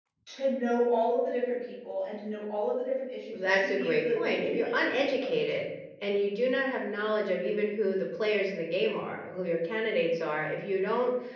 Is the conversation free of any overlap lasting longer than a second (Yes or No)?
No